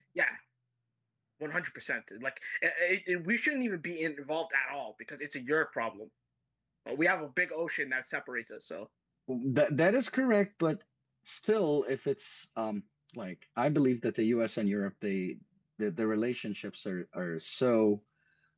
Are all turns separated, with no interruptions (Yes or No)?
Yes